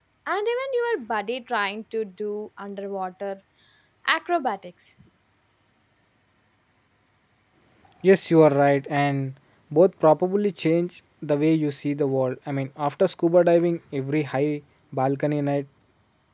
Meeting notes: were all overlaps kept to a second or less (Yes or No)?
Yes